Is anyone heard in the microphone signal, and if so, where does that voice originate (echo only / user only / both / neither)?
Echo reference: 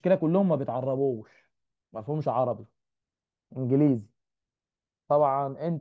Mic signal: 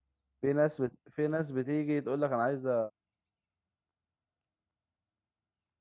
user only